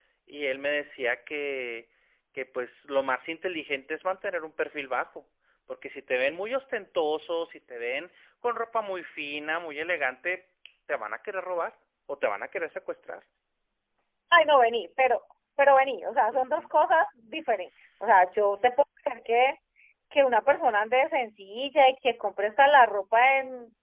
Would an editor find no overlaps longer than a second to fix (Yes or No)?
Yes